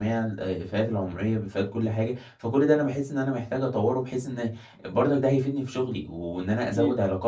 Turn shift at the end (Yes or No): No